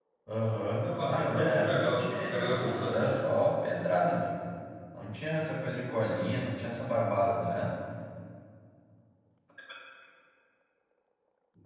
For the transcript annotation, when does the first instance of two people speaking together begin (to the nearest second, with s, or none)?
1 s